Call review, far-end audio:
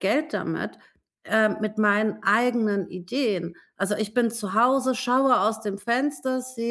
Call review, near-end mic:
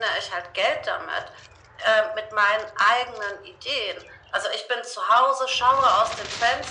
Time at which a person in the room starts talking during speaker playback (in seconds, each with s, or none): none